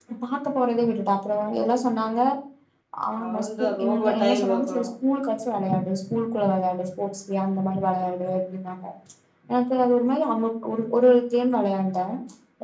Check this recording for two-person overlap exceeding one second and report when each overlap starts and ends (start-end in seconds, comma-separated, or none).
3.2-4.8